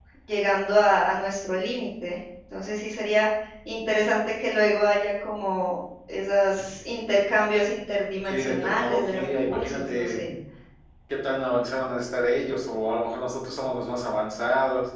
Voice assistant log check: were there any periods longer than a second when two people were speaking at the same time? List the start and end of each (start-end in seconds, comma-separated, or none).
8.3-10.2